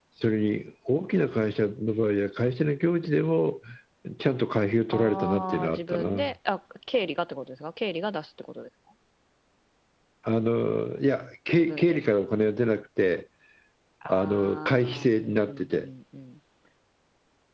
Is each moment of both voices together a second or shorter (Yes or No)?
No